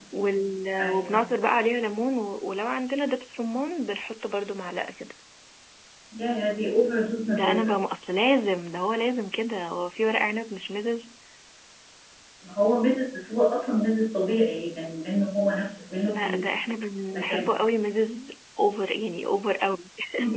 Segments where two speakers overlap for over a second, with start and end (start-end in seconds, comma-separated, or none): none